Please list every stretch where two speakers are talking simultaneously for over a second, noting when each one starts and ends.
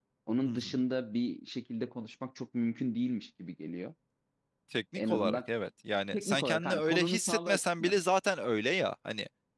6.1-7.9

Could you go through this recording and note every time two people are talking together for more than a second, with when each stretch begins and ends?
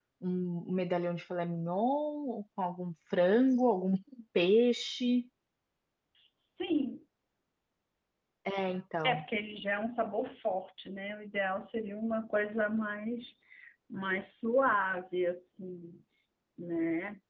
none

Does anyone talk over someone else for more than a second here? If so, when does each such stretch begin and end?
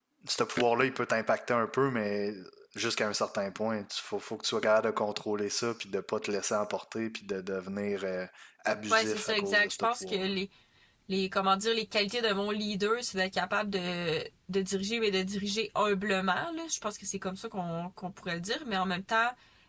8.9-10.3

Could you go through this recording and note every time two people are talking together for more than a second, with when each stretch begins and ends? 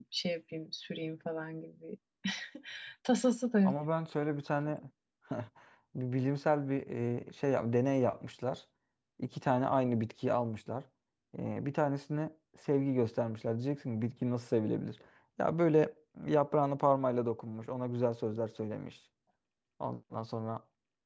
none

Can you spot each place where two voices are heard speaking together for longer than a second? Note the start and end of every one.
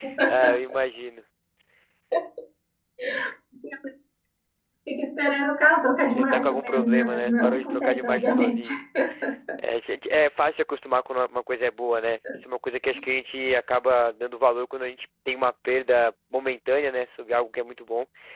6.1-8.7

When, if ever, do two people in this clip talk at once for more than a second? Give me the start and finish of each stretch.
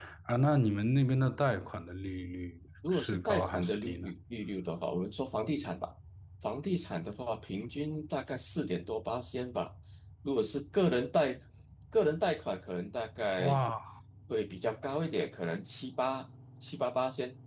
2.9-4.1

